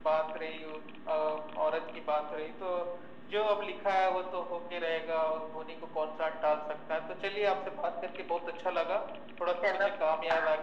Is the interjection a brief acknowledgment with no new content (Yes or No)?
Yes